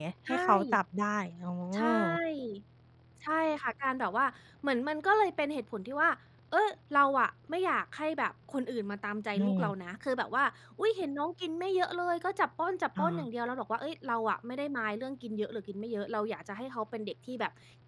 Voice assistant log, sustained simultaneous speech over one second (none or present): none